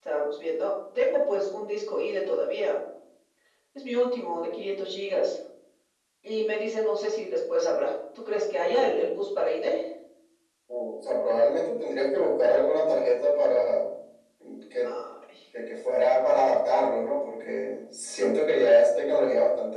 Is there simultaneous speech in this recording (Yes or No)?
No